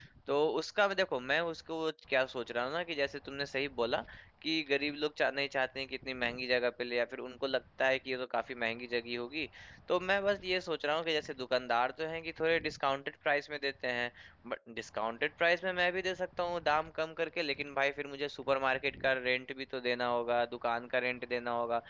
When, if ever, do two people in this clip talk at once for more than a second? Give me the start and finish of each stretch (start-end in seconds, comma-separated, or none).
none